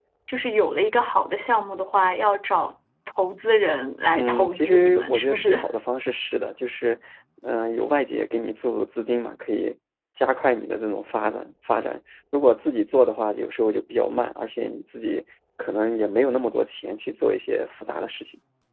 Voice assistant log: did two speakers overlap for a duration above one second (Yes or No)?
Yes